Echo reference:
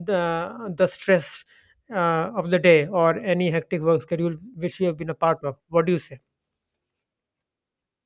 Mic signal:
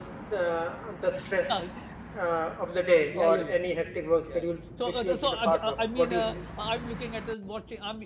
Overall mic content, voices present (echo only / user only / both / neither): both